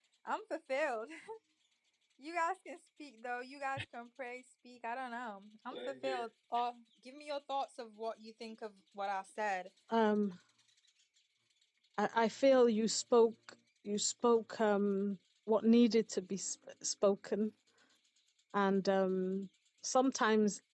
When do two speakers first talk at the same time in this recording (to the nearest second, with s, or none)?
none